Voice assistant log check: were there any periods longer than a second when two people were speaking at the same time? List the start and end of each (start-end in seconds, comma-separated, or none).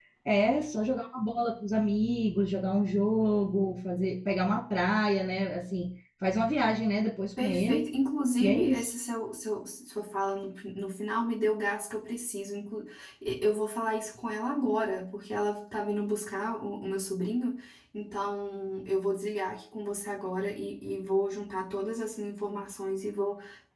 none